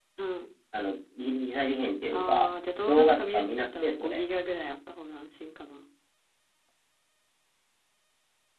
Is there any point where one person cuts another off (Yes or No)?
Yes